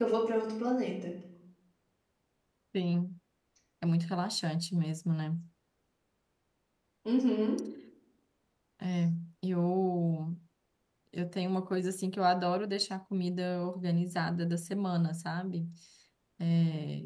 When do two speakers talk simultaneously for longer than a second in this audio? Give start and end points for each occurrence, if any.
none

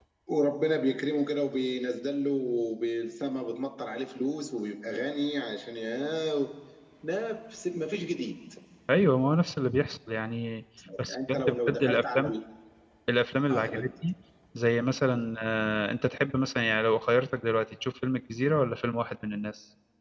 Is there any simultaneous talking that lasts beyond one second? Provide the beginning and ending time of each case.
11.1-12.4

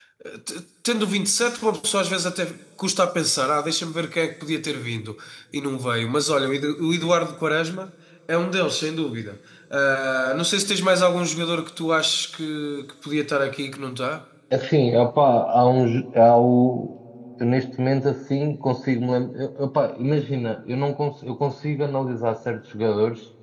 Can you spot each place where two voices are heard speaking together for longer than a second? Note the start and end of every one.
none

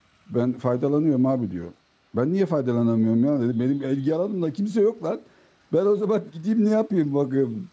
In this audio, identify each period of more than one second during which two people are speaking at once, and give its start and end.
none

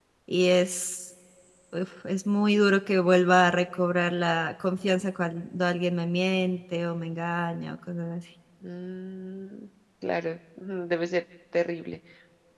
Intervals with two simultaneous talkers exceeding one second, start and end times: none

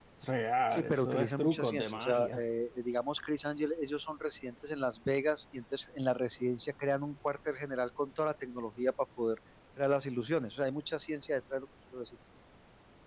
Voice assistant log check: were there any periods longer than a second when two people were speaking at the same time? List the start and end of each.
0.7-2.4

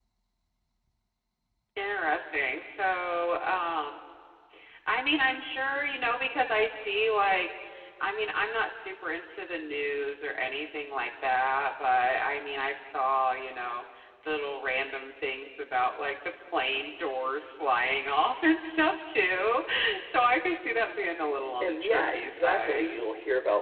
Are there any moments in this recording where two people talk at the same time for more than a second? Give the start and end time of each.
21.6-23.0

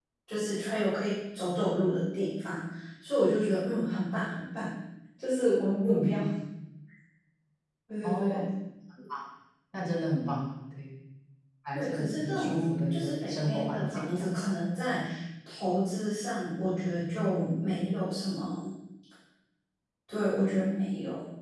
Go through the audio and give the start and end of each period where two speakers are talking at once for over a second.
11.7-14.4

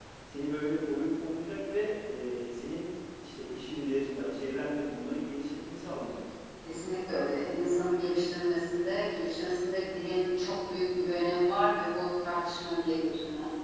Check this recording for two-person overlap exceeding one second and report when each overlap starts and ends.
none

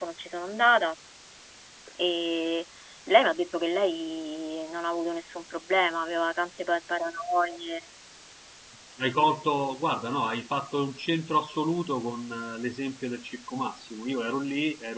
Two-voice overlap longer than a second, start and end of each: none

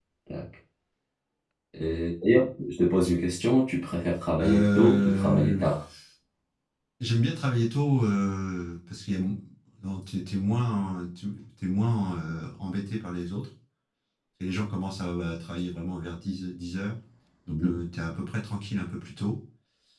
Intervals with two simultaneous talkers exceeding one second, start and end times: 4.4-5.6

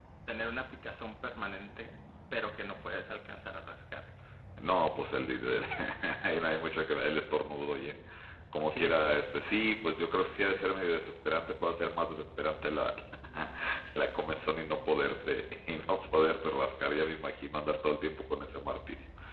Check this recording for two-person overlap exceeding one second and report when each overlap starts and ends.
none

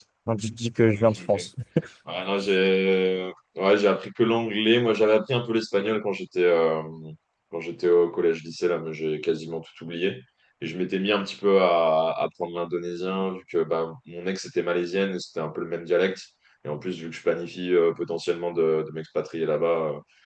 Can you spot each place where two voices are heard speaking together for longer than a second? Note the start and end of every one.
none

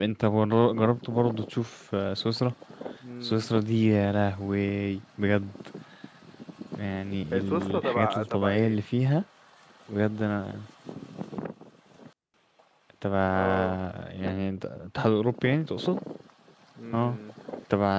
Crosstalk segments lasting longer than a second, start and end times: 7.3-8.8

